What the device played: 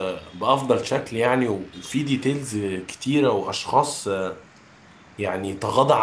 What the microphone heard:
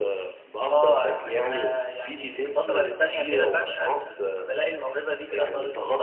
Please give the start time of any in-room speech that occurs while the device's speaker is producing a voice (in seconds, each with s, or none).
0.6 s